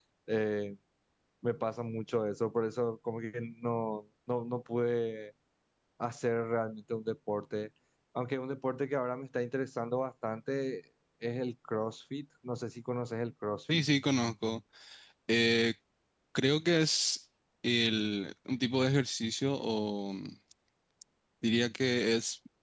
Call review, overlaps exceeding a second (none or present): none